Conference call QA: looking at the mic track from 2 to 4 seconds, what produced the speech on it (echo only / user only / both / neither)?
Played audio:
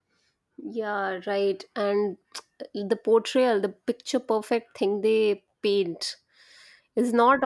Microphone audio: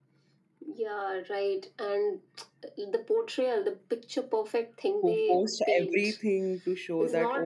echo only